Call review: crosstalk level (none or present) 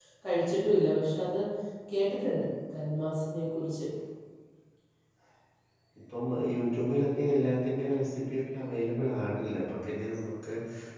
none